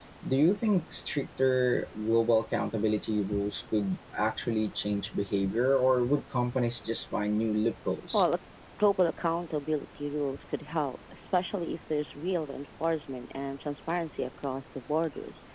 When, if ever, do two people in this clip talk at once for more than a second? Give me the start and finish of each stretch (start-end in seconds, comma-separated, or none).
none